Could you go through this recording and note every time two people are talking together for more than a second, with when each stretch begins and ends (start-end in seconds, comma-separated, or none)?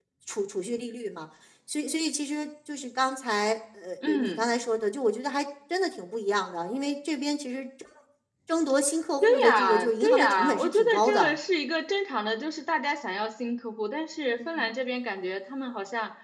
9.2-11.4